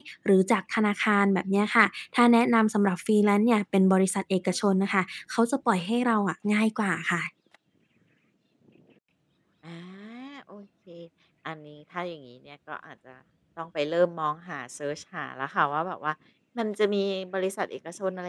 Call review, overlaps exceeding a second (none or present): none